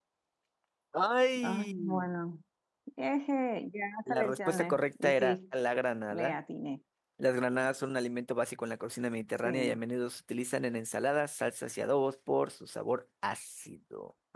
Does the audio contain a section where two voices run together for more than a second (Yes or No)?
Yes